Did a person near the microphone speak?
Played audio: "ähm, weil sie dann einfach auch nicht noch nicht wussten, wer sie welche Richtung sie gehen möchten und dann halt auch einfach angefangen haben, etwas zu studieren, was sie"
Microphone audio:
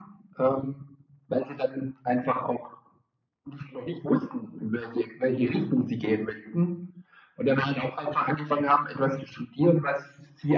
No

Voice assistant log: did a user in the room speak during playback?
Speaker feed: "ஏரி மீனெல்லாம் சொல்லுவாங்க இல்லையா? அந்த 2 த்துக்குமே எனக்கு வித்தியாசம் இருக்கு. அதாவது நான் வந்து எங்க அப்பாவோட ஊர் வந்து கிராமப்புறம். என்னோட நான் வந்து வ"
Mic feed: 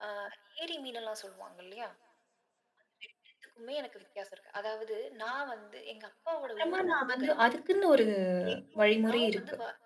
Yes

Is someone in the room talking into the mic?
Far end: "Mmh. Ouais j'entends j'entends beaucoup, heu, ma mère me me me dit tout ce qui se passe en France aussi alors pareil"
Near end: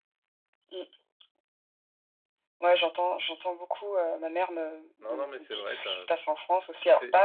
Yes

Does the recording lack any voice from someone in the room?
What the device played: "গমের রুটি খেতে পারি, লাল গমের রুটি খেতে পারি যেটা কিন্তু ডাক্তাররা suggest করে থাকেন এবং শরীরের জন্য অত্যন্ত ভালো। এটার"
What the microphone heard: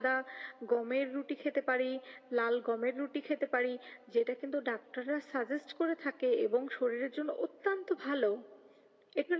Yes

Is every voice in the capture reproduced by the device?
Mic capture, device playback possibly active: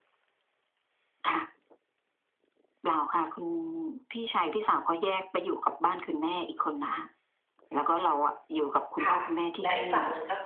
No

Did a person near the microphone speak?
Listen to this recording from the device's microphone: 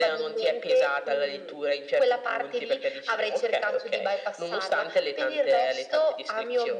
No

